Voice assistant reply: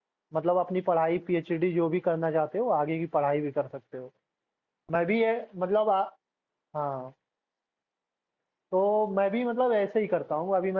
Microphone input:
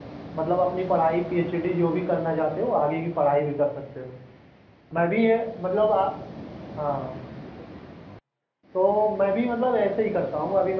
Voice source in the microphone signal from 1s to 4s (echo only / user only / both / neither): echo only